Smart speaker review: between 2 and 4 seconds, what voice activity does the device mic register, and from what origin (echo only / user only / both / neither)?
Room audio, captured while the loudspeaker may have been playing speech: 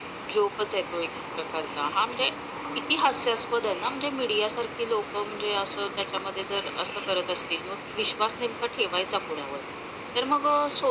echo only